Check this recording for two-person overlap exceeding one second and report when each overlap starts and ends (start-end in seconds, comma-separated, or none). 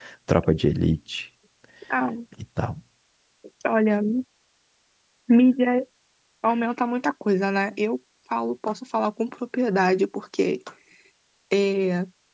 none